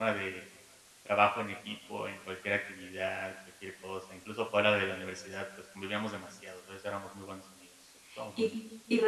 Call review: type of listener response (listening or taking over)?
taking over